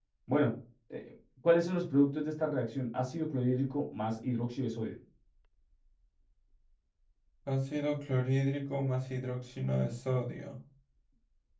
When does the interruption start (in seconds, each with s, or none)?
none